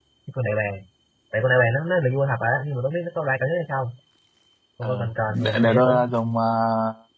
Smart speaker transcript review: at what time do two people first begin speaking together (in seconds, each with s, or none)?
4.8 s